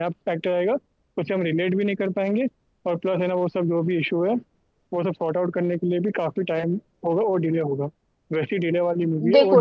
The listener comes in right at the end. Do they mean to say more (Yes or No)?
Yes